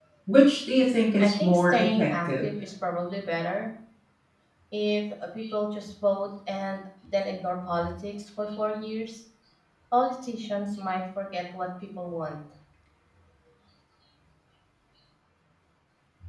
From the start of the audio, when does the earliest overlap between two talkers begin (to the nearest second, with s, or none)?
1 s